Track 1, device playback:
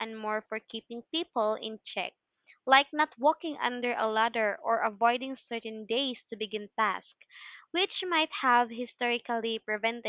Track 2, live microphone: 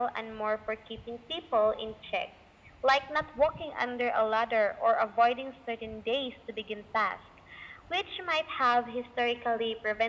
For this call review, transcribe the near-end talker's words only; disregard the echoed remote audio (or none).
none